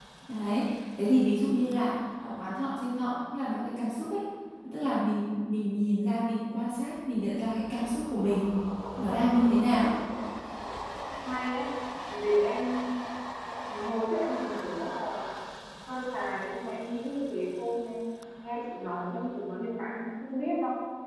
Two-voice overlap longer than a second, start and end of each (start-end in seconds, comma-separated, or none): none